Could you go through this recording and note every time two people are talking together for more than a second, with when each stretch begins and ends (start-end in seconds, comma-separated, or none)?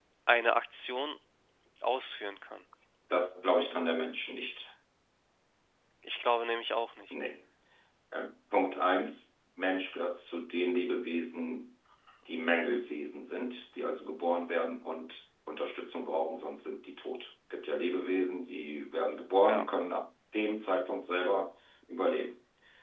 none